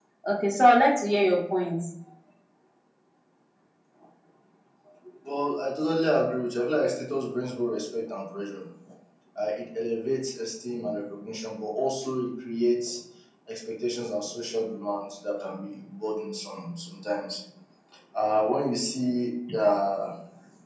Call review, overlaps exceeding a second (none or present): none